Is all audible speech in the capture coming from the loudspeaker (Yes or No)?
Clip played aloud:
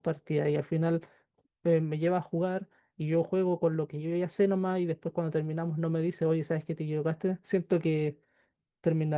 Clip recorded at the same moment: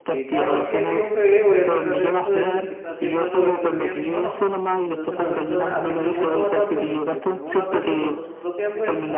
No